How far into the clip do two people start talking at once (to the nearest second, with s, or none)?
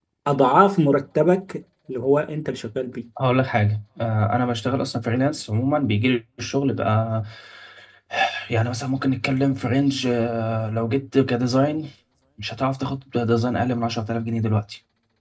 none